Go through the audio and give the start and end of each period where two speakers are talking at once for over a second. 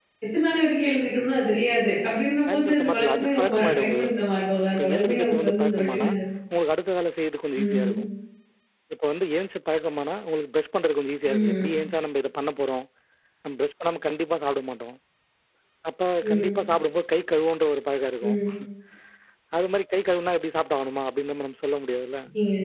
2.5-4.2, 4.8-6.1

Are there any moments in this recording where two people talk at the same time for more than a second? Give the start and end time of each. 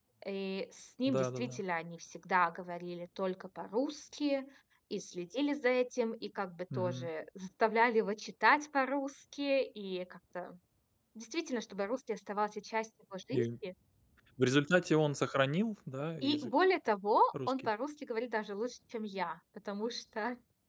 none

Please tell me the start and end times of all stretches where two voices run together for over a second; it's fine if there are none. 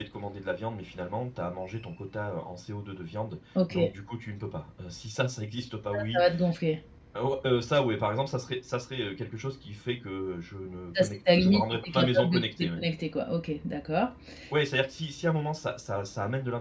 11.0-12.8

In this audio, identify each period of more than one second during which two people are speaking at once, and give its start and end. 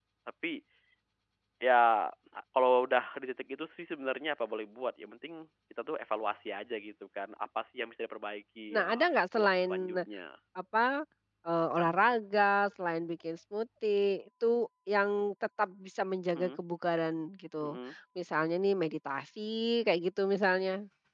8.7-9.9

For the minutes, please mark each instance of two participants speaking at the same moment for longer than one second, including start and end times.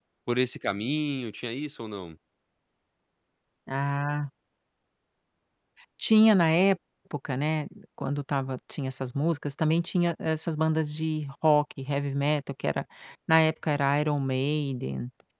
none

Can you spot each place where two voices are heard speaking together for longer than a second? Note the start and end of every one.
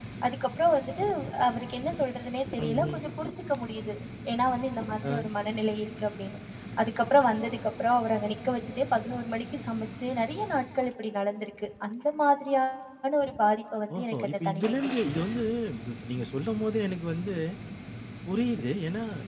14.0-15.2

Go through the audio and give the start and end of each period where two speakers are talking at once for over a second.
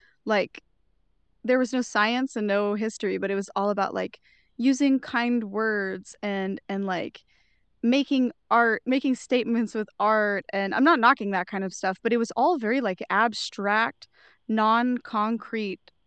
none

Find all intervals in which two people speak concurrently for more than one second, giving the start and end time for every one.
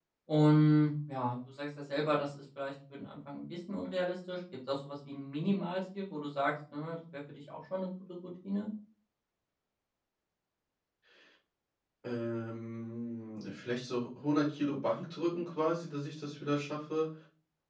none

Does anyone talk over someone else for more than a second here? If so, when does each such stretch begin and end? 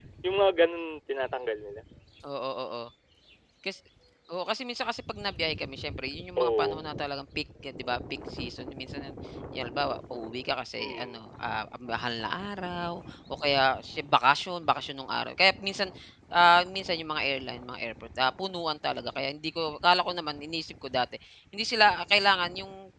none

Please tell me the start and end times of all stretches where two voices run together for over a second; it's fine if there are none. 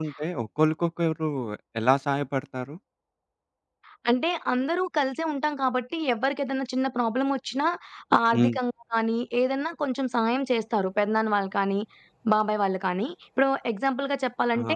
none

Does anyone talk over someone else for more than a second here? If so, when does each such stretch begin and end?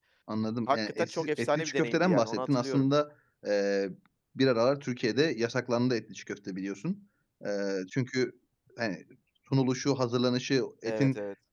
0.7-2.9

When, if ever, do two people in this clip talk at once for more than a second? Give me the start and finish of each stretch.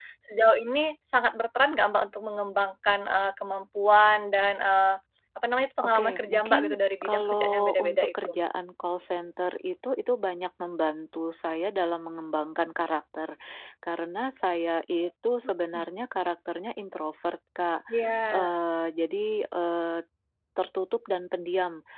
5.8-8.1

